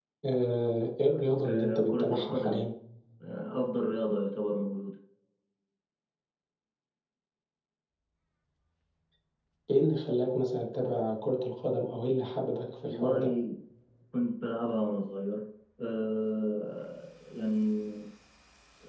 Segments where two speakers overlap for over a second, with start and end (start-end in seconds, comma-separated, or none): 1.4-2.7